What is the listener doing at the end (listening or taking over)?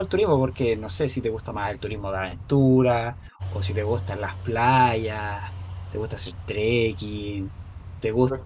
taking over